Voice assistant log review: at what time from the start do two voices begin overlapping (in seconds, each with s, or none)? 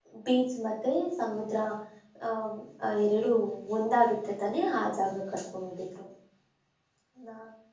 none